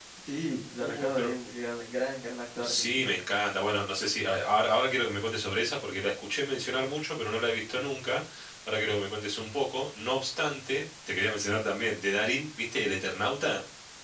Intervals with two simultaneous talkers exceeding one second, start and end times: none

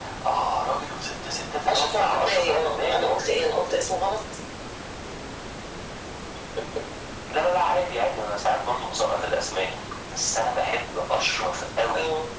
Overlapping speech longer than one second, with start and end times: 1.7-3.0

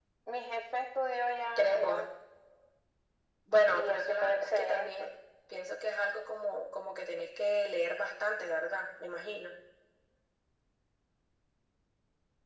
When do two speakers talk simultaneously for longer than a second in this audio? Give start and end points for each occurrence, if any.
3.7-5.1

